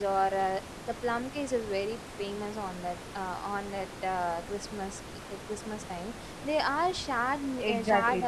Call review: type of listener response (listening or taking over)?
taking over